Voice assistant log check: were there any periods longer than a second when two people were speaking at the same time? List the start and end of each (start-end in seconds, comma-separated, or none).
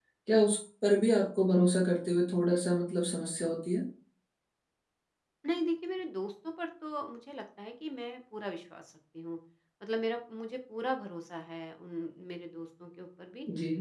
none